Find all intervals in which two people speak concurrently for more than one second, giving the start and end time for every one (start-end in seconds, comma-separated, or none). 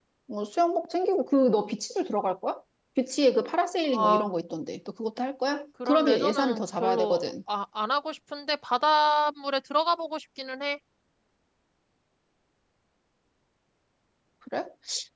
5.8-7.2